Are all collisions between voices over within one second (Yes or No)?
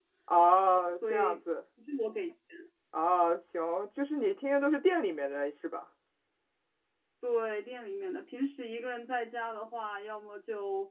Yes